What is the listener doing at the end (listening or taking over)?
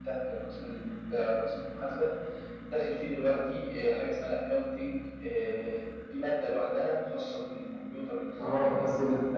taking over